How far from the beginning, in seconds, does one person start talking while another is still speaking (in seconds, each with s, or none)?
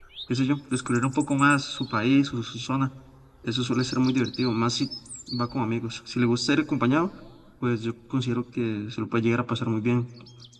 none